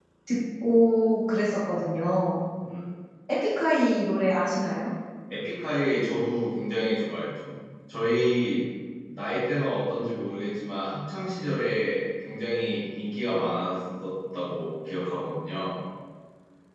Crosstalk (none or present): none